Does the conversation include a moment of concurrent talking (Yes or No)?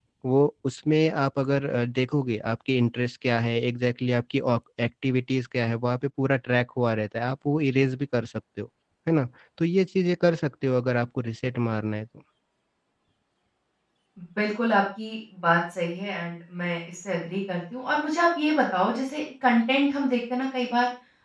No